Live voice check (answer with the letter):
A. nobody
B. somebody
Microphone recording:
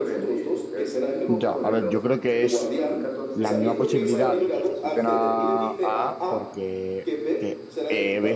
B